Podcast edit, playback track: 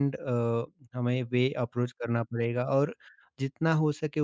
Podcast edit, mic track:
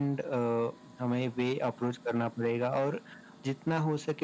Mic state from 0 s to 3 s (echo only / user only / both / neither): echo only